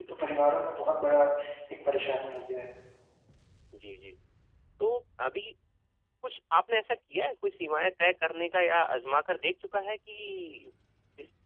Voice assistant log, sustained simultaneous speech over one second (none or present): none